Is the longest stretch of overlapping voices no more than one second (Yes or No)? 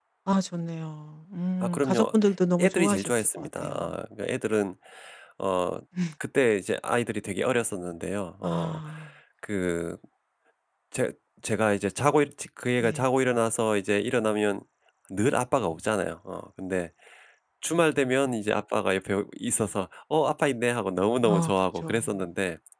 No